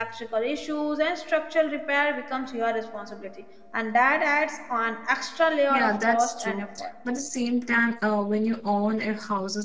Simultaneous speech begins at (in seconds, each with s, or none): 5.7 s